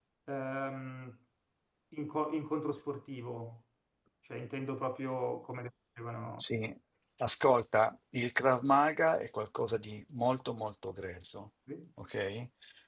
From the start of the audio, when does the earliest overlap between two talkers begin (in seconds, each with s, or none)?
none